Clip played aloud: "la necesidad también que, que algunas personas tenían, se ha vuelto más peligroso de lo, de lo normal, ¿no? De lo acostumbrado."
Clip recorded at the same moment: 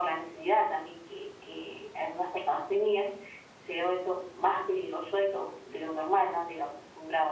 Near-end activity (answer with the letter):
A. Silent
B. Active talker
A